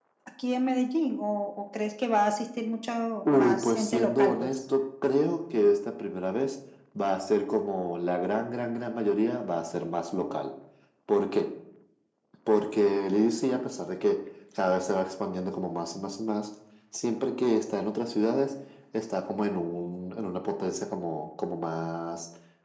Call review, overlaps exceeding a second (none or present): present